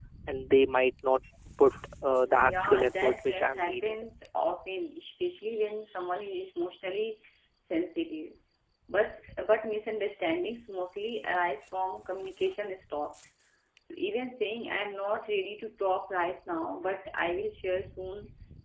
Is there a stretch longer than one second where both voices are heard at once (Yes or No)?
Yes